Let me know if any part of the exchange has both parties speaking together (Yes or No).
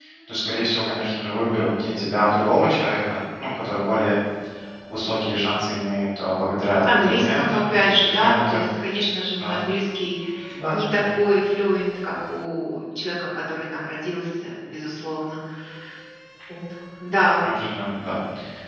Yes